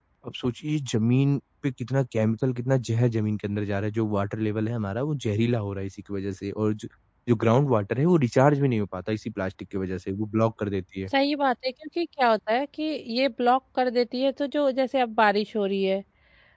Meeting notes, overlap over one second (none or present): none